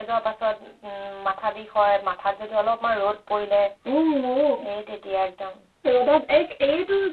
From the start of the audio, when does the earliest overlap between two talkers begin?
none

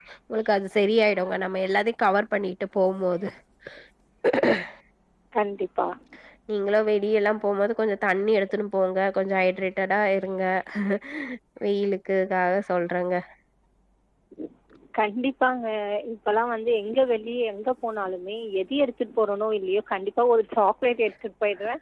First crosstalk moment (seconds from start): none

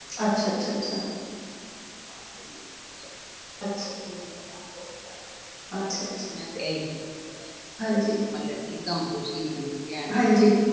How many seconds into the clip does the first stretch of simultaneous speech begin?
none

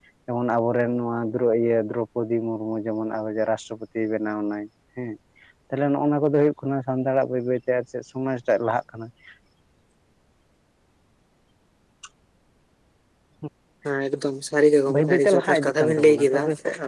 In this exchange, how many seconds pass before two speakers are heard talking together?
15 s

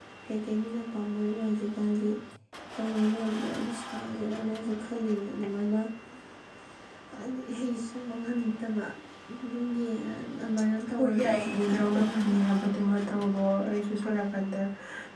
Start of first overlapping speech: 11 s

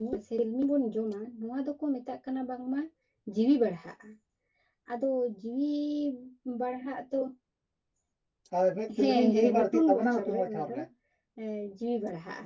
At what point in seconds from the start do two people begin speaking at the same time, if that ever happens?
9 s

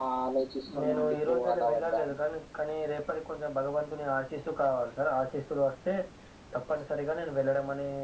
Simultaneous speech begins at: 1 s

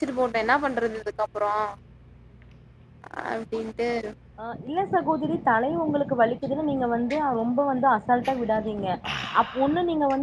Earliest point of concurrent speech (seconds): none

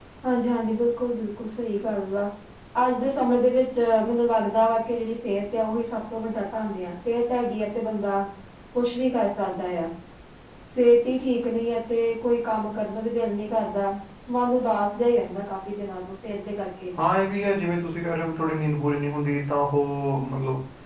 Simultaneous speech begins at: none

